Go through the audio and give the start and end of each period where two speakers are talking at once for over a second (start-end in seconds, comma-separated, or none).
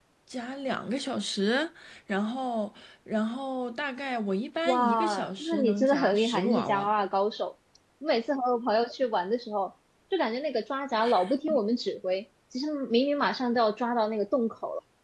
4.7-6.9